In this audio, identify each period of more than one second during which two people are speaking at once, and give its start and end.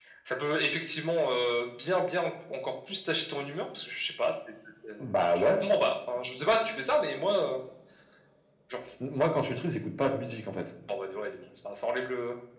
none

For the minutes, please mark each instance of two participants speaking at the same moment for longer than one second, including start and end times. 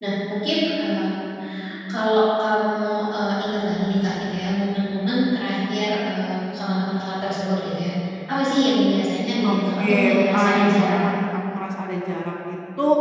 9.4-11.0

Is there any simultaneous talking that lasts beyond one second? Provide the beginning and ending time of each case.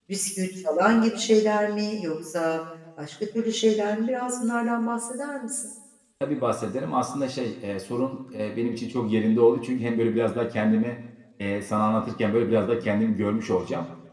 none

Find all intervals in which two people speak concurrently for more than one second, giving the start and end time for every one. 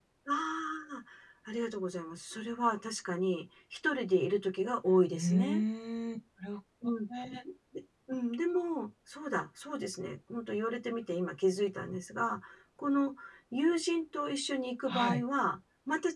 none

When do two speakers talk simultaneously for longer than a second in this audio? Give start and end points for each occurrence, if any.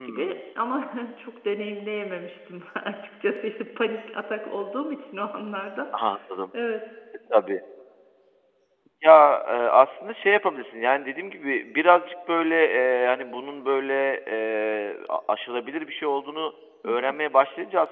none

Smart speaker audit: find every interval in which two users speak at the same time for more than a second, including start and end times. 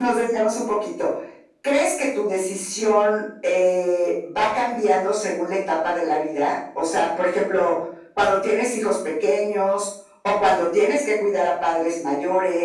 none

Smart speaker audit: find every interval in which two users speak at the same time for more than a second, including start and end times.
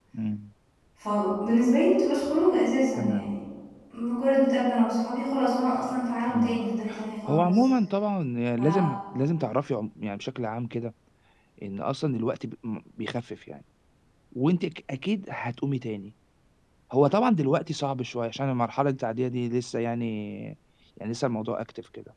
none

